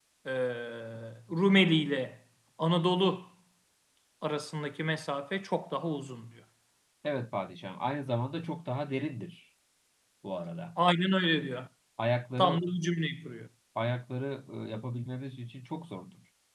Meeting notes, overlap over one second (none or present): none